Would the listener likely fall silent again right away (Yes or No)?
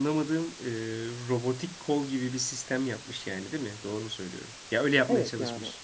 No